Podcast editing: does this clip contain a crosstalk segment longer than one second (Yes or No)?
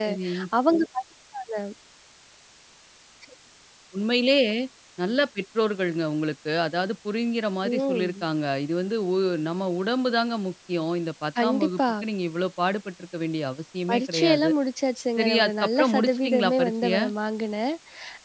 Yes